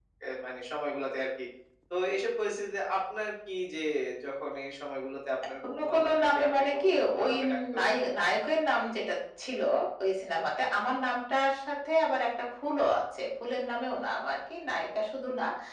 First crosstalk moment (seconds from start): 5.6 s

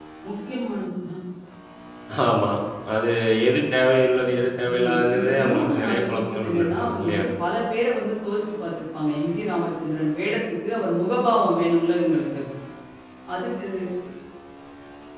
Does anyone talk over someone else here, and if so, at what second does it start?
4.6 s

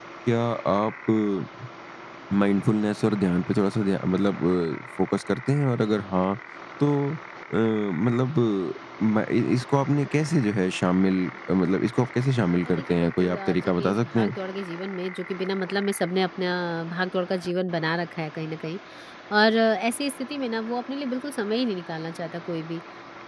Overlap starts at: 12.5 s

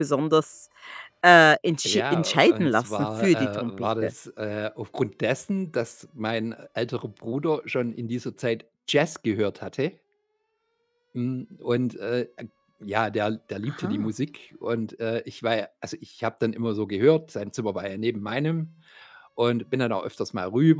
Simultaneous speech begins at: 1.9 s

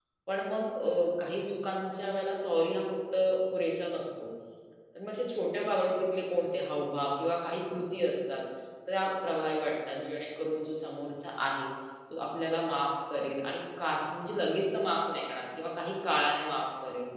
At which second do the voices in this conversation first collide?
none

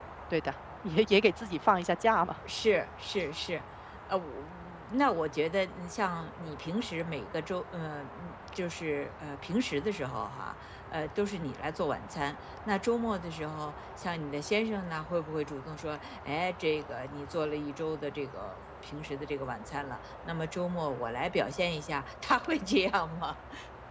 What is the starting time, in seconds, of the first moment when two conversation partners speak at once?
none

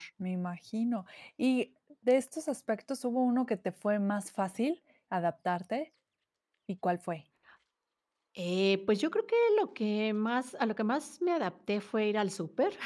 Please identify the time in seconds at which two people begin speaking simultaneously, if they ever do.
none

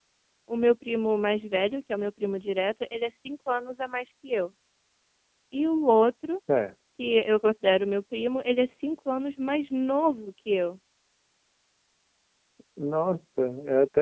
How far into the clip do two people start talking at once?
none

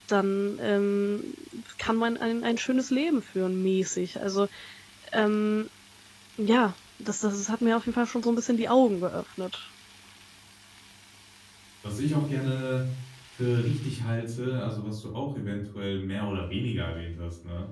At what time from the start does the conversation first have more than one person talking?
none

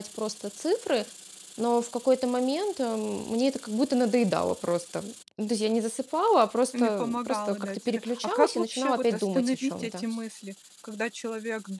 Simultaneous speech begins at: 6.7 s

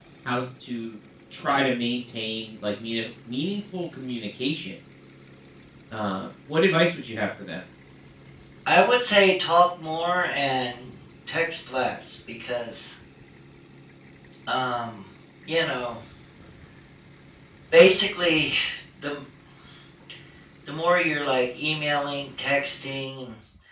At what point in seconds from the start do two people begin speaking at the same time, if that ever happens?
none

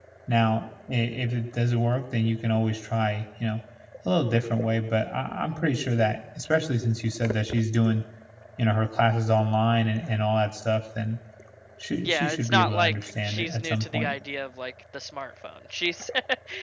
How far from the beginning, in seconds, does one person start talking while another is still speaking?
12.0 s

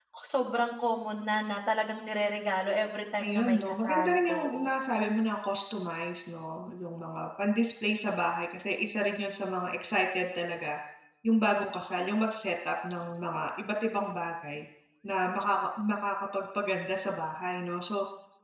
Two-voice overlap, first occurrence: 3.2 s

